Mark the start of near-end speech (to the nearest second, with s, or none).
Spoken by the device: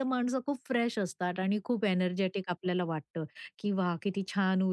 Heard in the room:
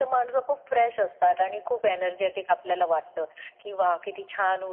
none